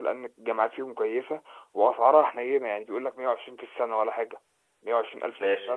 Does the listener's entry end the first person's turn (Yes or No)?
No